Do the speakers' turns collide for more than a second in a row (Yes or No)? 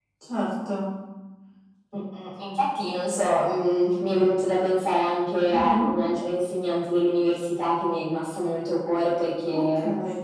No